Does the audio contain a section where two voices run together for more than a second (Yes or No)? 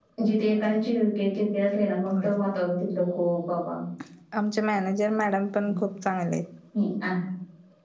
No